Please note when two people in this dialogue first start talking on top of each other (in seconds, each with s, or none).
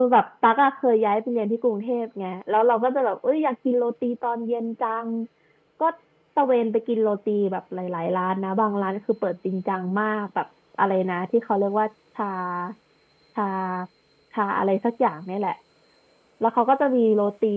none